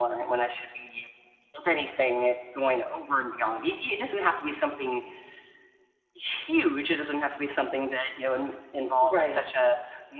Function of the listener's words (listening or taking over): listening